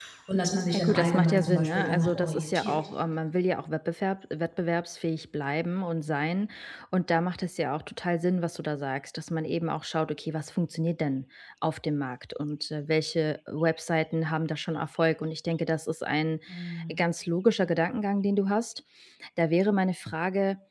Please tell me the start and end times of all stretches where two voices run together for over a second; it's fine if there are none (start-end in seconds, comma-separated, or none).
0.7-2.8